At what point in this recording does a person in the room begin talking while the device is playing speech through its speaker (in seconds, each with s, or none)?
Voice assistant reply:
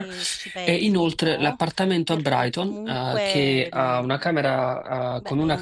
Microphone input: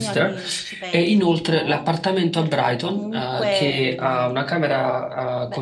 none